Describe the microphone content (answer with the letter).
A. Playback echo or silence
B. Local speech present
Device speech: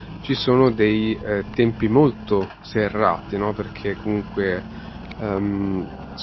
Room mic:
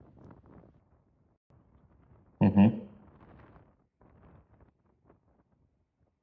B